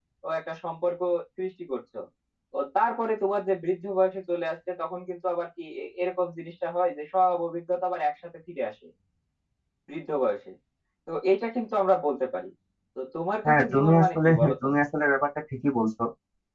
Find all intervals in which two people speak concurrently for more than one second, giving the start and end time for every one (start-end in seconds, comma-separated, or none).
13.5-14.7